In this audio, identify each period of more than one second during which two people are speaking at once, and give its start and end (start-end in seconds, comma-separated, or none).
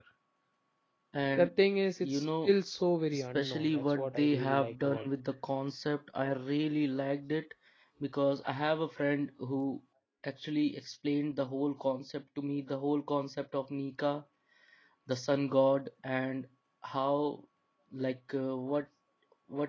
3.1-5.1